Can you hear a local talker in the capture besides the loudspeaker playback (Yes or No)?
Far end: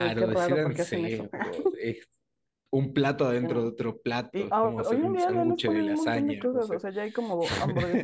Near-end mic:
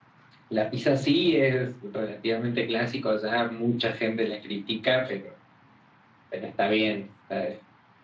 Yes